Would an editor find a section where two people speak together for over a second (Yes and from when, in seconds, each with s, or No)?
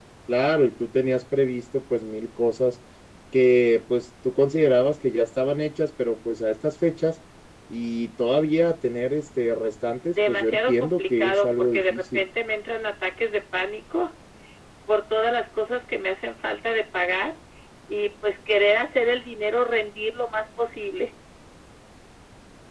Yes, from 10.1 s